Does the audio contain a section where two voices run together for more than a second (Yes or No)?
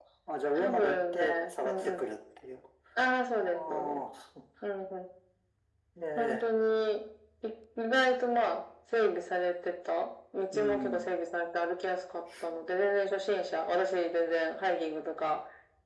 Yes